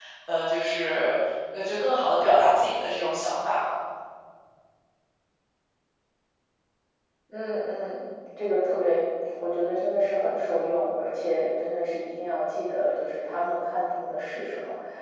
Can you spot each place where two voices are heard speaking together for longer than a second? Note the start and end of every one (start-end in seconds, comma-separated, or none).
none